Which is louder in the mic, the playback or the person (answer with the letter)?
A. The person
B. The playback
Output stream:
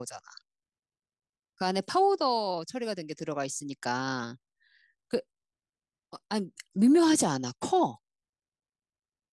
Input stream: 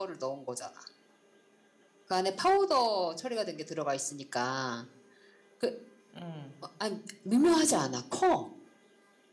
B